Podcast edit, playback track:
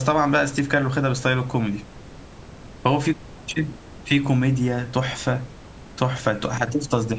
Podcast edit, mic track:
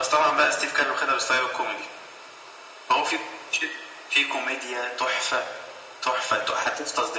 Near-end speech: none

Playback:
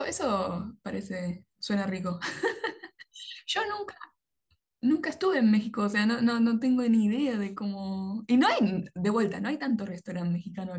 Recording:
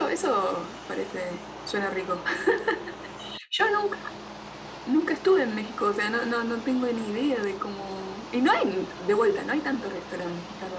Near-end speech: none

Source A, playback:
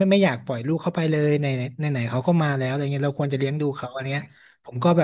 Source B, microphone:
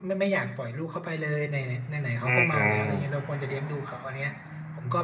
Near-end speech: present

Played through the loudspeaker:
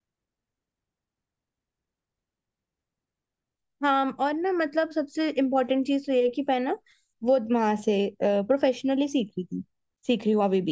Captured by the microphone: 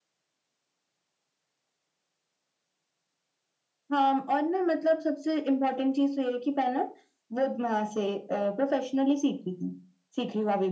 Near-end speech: none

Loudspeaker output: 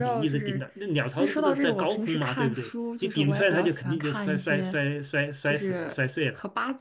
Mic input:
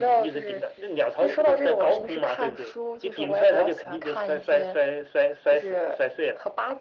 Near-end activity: none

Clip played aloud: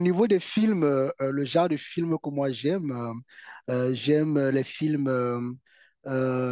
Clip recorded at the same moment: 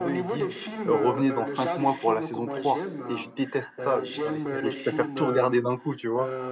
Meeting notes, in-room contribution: present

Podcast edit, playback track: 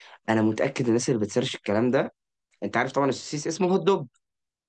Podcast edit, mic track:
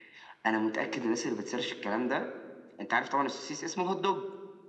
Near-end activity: none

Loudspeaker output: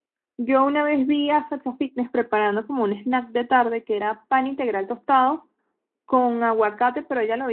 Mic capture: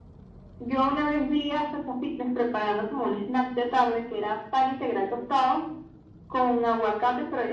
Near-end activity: none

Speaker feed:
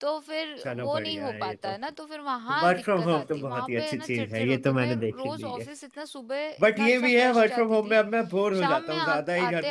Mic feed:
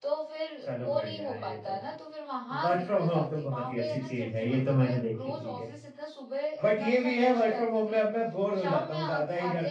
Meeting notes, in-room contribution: none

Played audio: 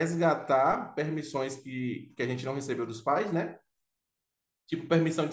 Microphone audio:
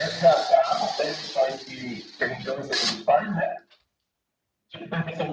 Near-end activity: none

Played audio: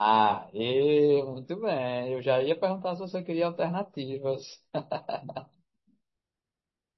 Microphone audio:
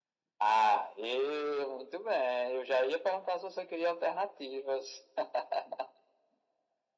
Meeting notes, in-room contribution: none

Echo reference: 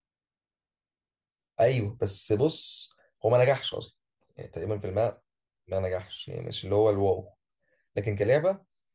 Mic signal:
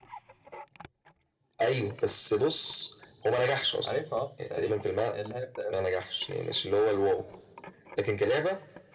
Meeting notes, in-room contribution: present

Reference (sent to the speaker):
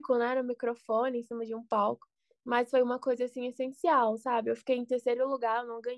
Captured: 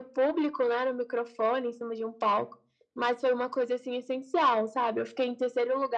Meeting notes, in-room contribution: none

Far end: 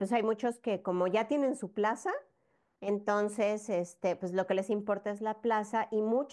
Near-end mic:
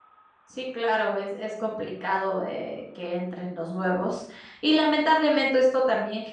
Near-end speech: present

